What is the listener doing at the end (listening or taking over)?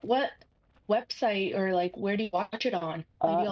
taking over